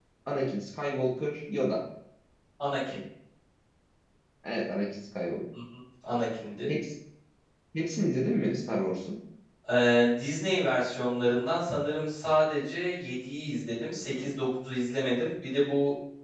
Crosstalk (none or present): none